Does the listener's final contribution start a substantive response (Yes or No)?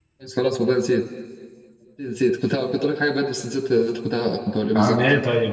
Yes